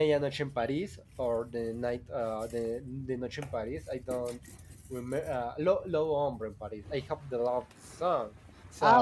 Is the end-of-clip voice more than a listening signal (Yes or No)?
Yes